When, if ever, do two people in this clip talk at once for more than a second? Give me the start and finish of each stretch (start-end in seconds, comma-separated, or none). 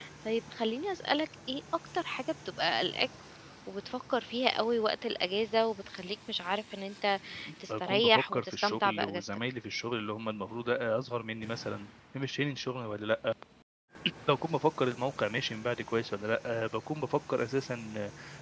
7.7-9.3